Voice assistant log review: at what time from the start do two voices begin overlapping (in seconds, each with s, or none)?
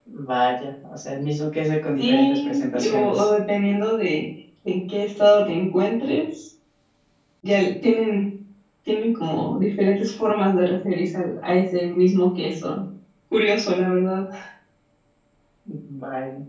2.0 s